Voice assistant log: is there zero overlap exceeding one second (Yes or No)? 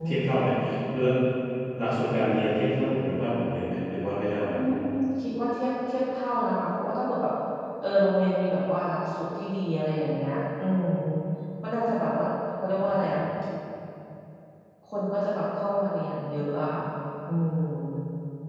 Yes